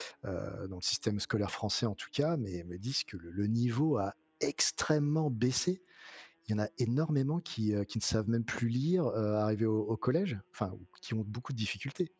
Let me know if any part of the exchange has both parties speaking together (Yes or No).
No